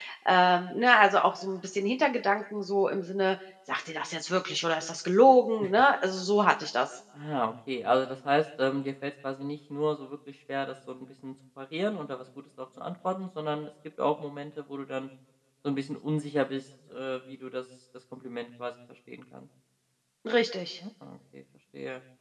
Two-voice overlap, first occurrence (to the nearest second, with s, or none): none